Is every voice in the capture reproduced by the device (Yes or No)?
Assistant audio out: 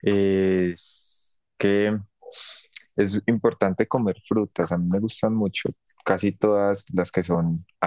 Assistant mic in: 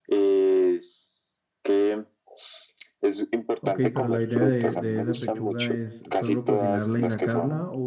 No